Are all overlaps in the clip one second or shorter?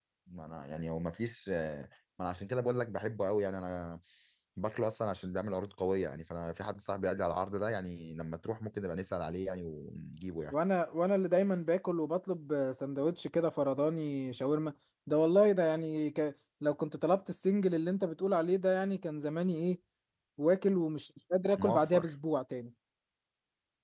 Yes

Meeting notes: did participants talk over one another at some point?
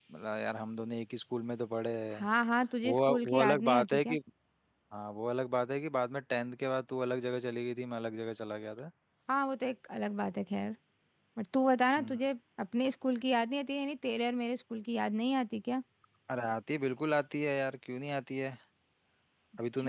Yes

